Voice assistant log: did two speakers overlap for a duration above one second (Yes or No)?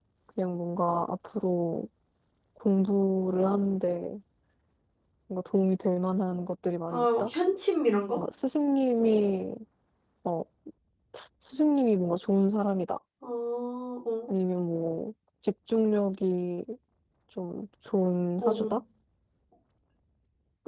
No